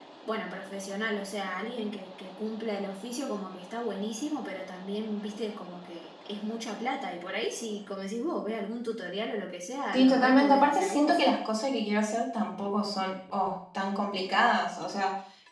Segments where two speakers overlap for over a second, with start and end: 9.9-11.2

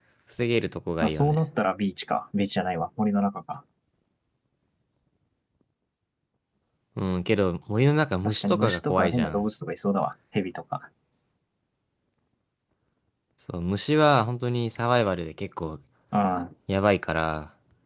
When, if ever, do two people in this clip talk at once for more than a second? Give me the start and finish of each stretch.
8.2-9.4

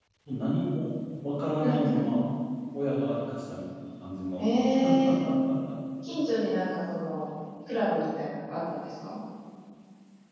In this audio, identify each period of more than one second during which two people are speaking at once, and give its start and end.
none

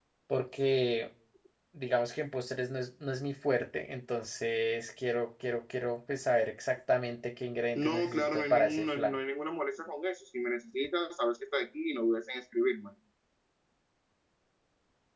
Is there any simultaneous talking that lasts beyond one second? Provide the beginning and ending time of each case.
7.8-9.2

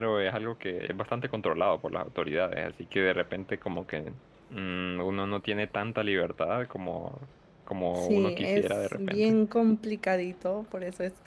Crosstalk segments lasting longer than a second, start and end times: 8.0-9.4

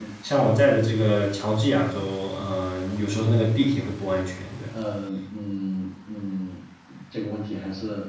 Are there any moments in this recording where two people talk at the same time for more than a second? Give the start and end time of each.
none

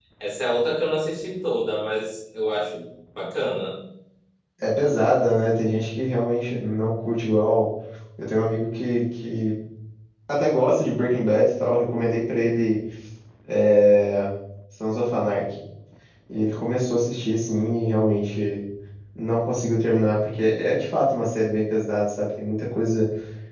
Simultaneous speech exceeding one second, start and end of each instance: none

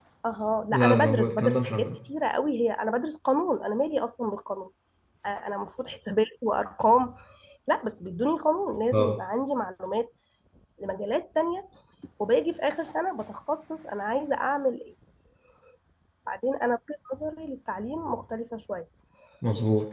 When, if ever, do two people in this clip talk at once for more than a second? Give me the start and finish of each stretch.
0.7-2.0

